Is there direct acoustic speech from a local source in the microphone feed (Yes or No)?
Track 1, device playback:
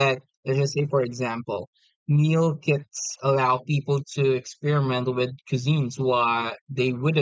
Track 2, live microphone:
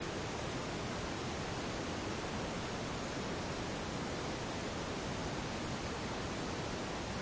No